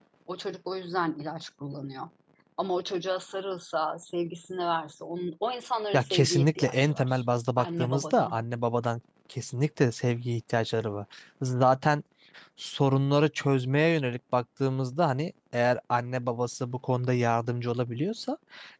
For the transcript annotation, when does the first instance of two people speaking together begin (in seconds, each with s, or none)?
5.9 s